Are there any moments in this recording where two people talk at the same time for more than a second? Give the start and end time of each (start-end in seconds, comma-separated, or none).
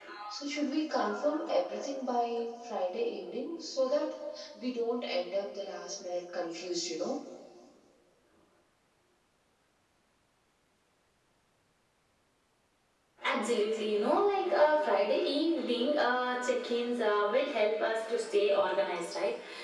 none